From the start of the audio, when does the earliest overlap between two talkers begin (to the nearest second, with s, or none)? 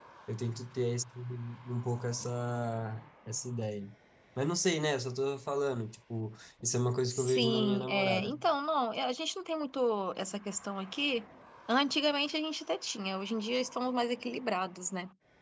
7 s